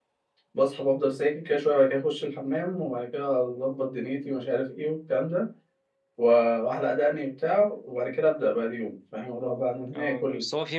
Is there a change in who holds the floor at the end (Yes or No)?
Yes